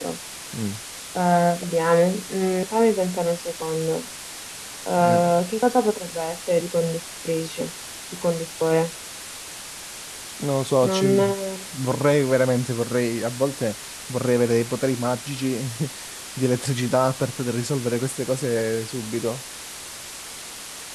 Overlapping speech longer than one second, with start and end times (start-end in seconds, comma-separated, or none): none